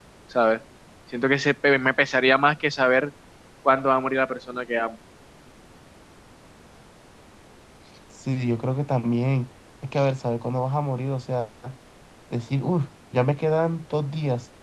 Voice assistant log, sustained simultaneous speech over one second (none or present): none